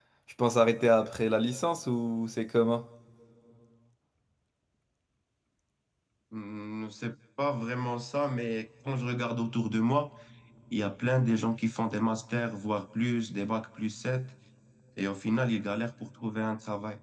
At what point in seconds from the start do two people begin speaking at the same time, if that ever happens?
none

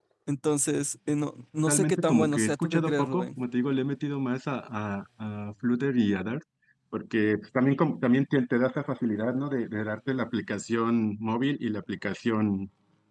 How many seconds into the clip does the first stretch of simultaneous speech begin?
1.7 s

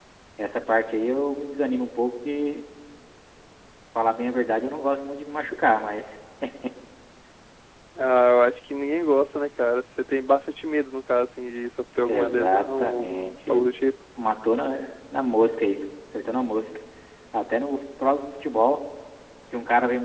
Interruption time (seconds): 12.1 s

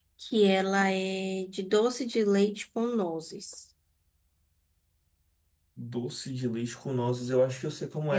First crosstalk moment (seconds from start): none

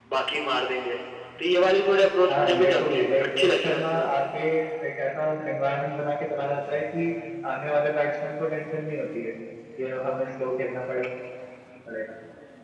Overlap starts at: 2.3 s

